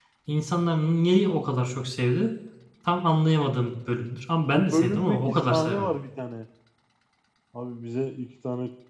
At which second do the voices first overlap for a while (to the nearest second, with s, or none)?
5 s